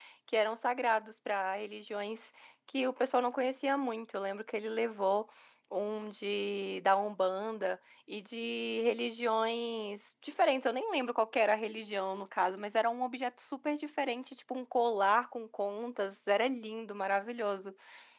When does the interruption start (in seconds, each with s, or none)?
none